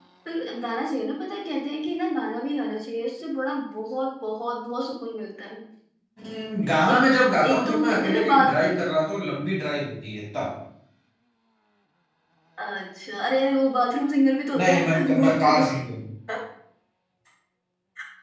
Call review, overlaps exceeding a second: present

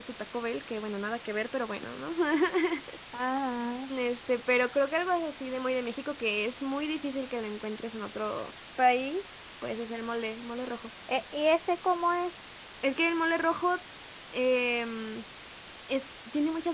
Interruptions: none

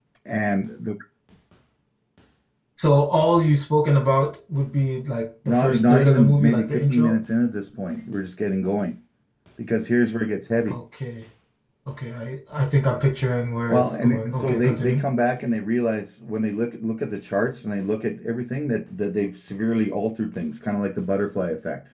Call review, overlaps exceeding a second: present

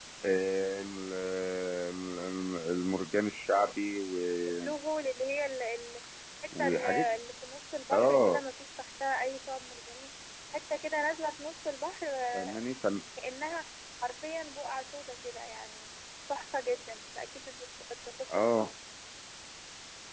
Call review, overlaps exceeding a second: none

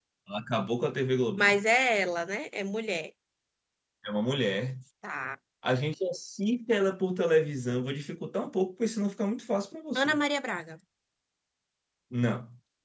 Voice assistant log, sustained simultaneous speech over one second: none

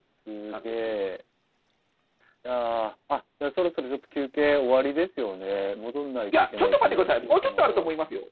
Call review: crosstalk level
present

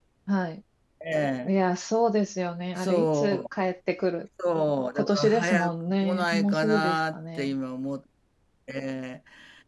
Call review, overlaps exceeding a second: present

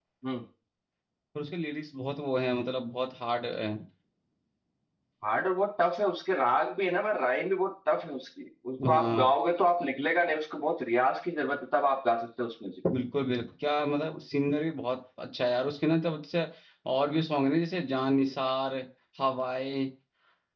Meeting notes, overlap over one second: none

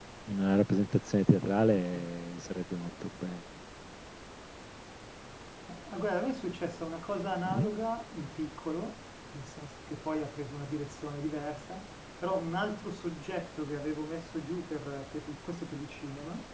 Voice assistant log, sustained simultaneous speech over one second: none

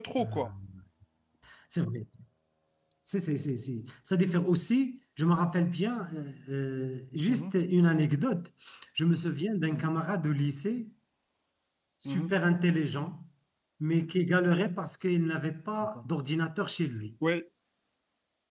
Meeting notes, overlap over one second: none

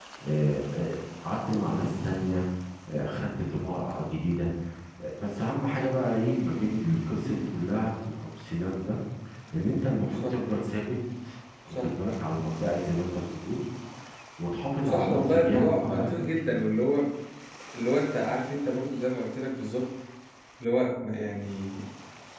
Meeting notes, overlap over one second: present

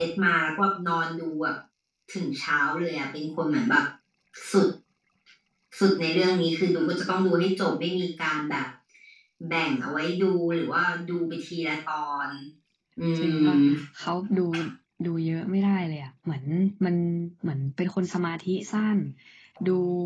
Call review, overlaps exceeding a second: none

